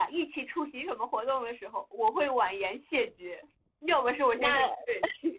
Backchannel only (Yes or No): Yes